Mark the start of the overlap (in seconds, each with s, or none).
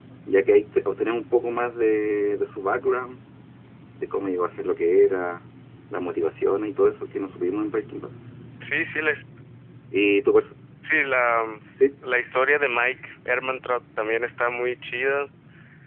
none